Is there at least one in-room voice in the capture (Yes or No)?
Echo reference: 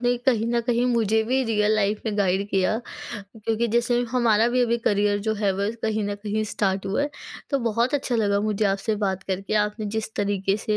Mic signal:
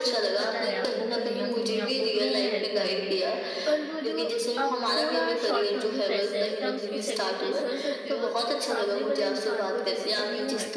Yes